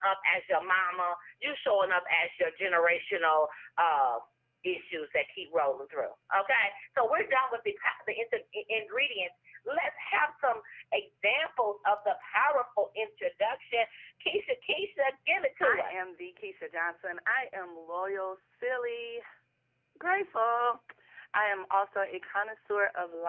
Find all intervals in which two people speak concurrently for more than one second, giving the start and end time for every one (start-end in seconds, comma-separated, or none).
none